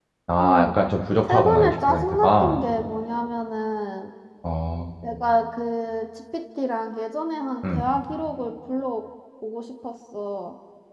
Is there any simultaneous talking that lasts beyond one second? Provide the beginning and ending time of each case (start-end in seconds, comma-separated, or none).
1.2-2.6